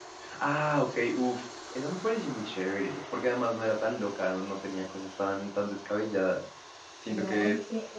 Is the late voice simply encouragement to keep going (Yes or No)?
No